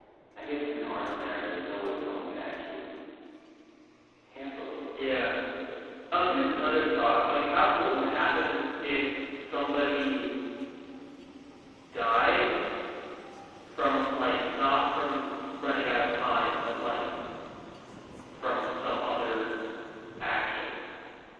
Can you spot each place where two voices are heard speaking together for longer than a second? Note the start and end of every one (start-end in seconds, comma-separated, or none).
none